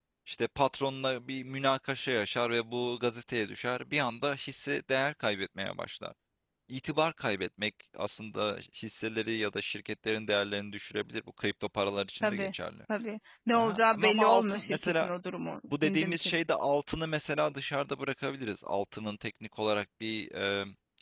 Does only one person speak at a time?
No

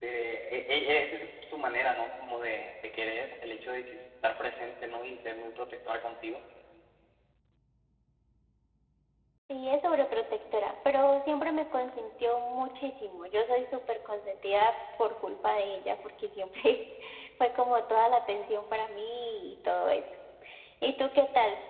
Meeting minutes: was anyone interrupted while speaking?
No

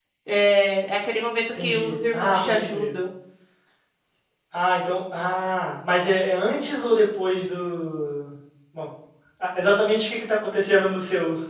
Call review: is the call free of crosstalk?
No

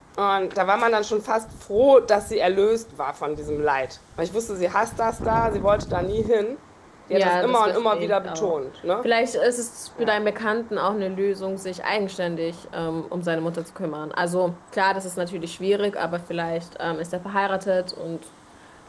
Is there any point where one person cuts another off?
Yes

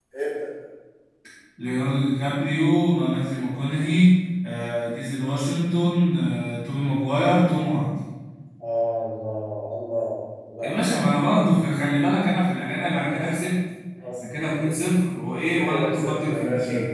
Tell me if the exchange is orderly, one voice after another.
No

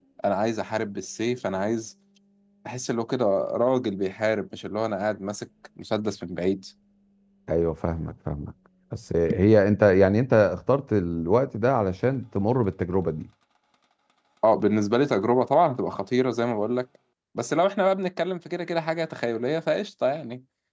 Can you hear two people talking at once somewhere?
No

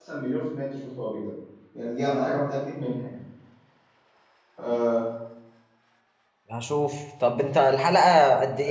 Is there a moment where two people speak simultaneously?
No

